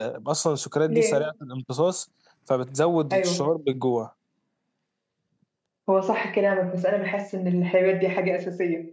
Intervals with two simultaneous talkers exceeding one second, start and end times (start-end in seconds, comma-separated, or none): none